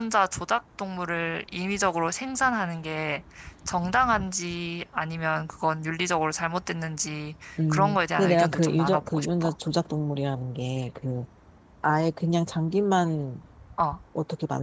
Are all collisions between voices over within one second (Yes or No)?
No